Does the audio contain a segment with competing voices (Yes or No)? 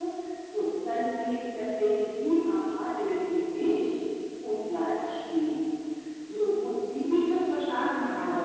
No